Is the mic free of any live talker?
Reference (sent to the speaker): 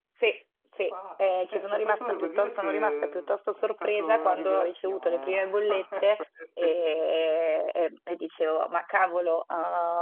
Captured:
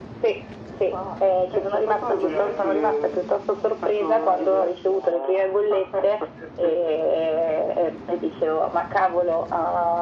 No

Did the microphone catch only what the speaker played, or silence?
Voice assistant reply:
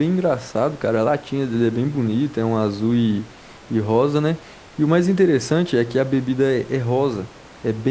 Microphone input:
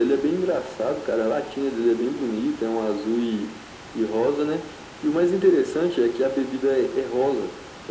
Yes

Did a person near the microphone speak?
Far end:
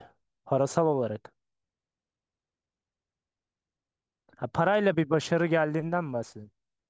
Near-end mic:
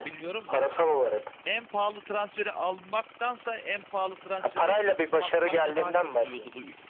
Yes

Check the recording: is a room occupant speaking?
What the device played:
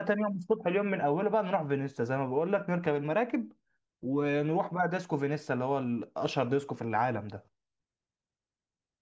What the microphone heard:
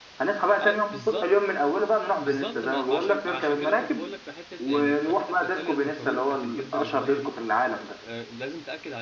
Yes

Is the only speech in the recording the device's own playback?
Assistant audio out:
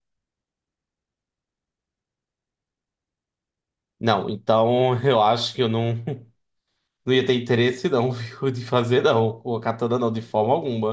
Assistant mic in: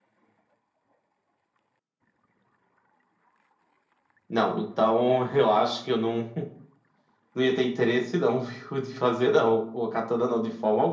Yes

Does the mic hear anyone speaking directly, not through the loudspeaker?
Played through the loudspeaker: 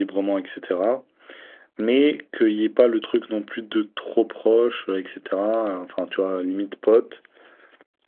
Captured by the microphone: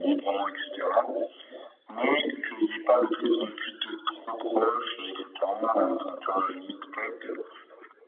No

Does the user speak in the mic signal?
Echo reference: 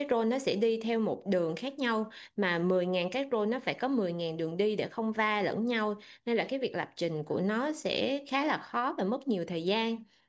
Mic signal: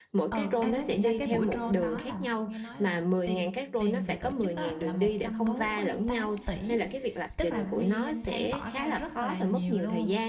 Yes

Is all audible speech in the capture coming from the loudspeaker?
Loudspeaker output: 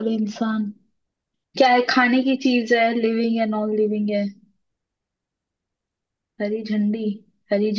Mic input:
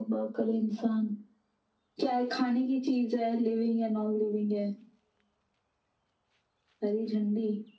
Yes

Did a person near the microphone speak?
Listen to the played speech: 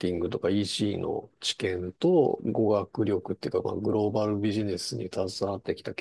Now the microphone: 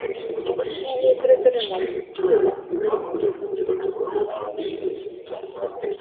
Yes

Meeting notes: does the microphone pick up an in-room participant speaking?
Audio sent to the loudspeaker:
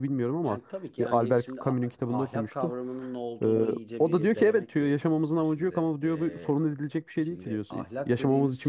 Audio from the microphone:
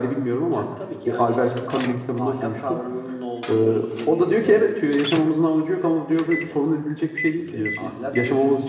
No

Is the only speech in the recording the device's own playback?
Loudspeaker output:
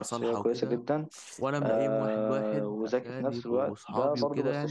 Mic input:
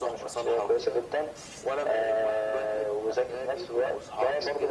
Yes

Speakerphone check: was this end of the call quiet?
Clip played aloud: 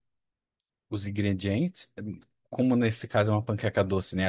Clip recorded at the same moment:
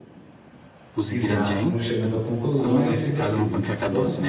No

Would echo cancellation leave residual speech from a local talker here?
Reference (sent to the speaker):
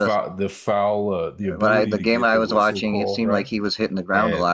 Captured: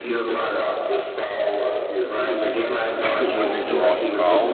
Yes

